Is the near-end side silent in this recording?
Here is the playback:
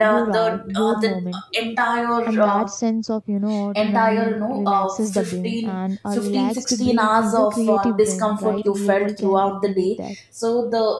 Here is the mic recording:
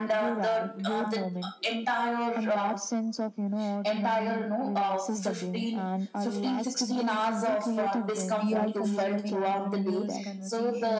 No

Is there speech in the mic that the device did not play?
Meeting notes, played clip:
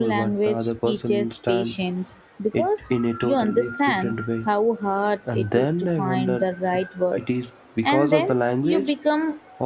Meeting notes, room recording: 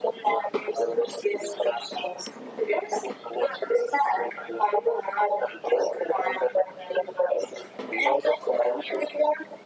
No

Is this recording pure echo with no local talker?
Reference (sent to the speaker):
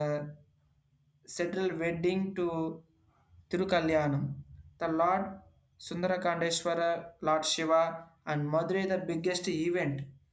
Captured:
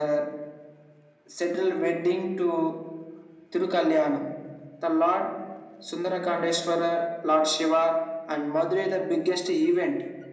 Yes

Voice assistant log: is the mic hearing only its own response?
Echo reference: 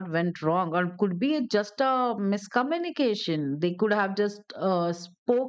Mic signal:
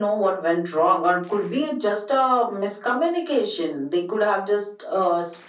Yes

